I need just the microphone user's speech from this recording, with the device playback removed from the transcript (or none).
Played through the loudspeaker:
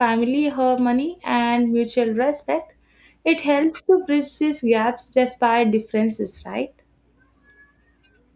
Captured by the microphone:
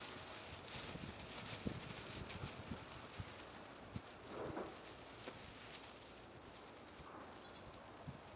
none